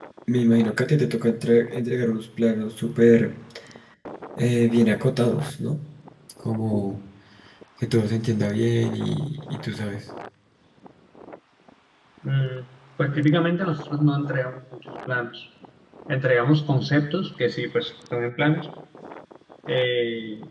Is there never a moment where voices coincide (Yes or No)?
Yes